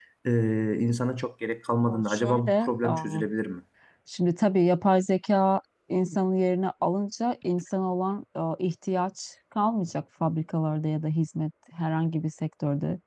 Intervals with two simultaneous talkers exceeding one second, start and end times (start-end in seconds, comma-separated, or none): 1.9-3.2